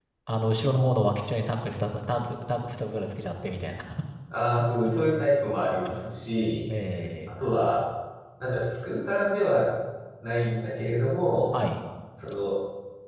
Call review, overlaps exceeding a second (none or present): none